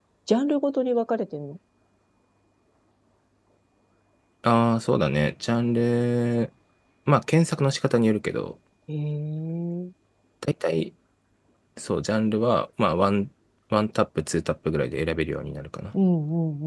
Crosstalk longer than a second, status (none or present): none